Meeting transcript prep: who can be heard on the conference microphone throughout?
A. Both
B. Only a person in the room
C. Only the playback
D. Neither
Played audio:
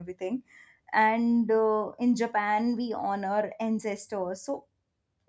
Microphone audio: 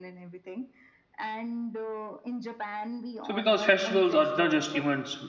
A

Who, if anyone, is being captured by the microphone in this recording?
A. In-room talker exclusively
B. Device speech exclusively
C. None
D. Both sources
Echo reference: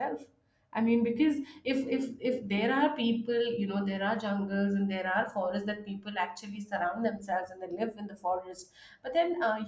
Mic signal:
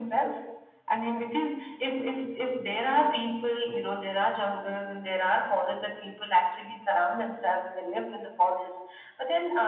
B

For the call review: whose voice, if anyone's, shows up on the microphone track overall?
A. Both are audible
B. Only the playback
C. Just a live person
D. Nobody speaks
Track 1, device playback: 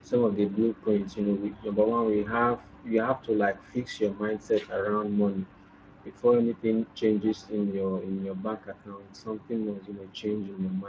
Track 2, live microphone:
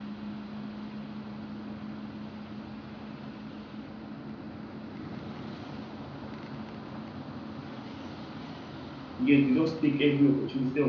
C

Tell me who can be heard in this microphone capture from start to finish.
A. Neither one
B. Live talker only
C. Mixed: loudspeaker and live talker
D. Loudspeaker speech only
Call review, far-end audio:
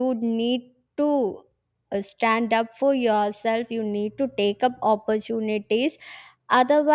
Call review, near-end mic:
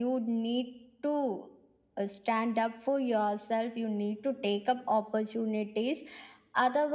D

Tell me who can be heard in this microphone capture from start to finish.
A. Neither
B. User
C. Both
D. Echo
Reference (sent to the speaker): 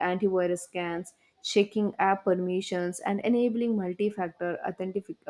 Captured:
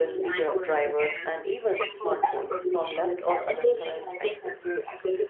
C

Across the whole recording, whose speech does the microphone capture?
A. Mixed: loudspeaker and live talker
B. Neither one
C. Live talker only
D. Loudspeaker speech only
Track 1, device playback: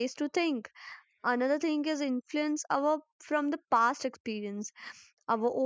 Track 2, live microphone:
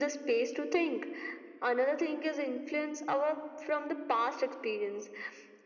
D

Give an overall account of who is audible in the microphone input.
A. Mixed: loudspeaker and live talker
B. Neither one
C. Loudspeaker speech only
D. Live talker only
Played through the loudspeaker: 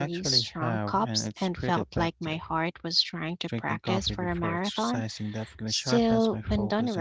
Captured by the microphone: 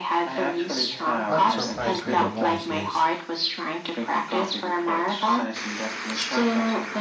A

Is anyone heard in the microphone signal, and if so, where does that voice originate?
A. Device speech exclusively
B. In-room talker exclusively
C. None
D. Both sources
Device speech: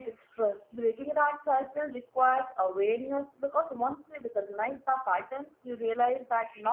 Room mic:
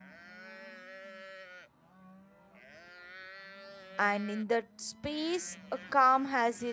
B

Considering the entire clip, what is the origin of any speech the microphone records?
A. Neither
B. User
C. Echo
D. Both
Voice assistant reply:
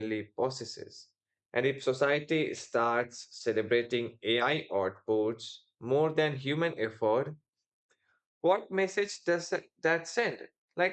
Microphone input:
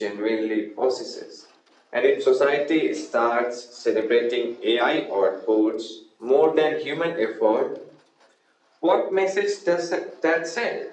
C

